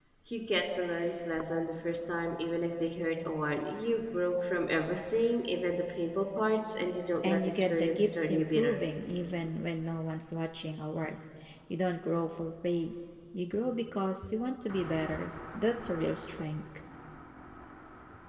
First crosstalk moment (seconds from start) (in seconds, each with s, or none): 7.2 s